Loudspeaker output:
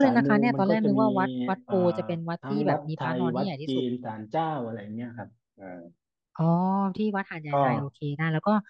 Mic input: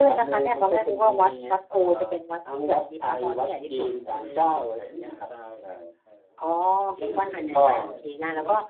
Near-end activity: present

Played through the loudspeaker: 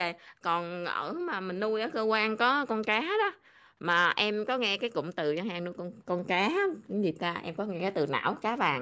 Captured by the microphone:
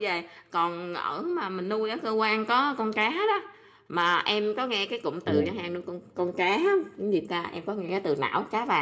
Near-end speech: present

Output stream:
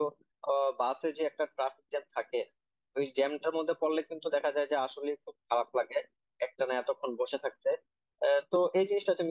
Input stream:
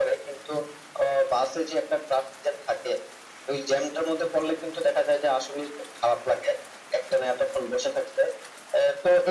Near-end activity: none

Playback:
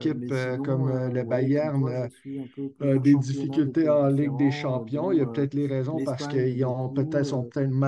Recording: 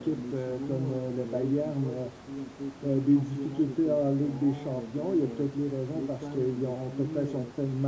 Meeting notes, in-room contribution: none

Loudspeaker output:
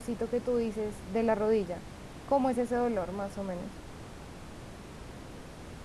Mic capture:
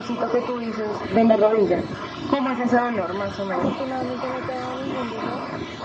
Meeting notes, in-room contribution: present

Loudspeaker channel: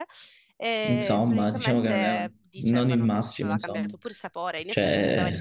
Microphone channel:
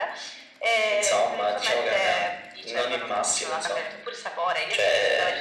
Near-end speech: none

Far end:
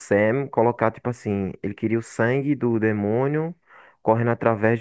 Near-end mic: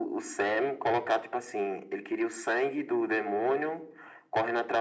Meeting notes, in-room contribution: none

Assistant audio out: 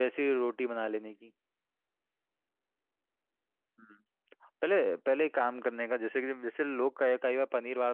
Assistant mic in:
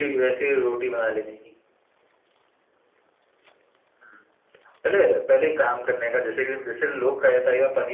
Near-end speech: none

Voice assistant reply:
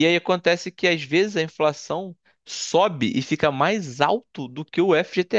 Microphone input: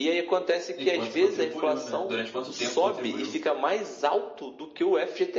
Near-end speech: present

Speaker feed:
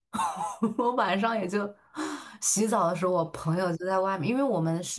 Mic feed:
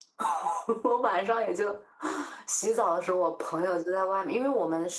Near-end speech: none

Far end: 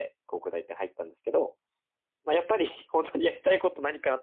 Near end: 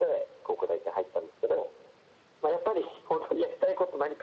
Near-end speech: none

